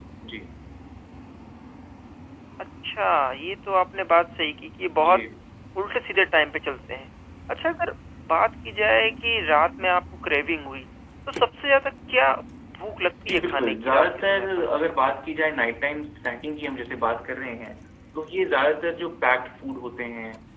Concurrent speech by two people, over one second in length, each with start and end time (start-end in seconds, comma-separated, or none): 13.3-14.6